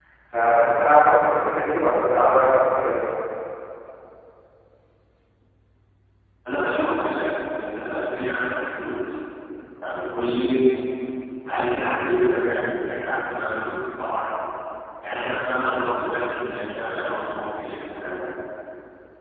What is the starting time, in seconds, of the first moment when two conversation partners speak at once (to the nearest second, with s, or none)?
none